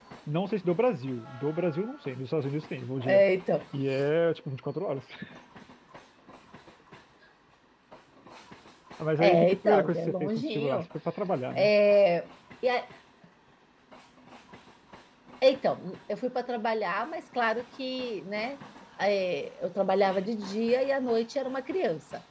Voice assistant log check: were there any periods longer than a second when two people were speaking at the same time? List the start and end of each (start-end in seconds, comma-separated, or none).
9.2-10.8